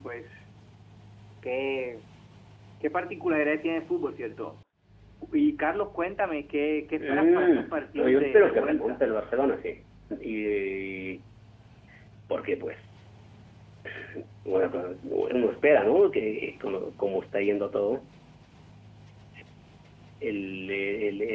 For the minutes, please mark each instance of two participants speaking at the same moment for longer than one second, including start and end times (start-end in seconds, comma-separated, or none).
7.0-9.0